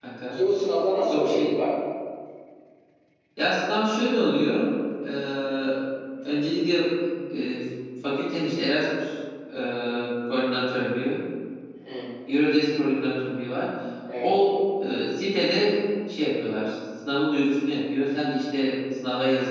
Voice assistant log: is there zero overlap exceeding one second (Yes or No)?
Yes